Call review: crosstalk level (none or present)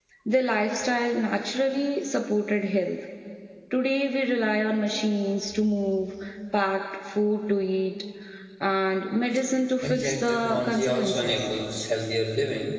present